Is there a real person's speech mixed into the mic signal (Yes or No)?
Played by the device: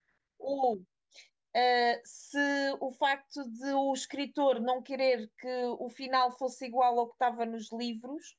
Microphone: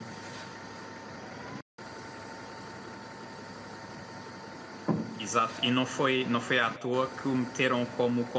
Yes